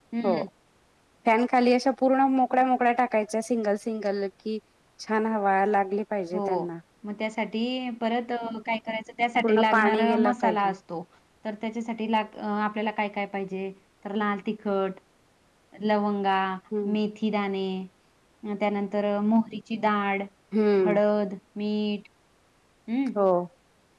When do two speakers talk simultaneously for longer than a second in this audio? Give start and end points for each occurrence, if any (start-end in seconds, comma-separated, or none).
9.4-10.7